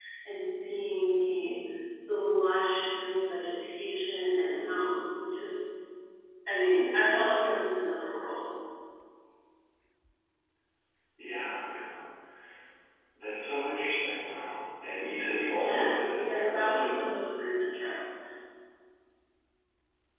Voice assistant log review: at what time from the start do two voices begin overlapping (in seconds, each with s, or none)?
15.6 s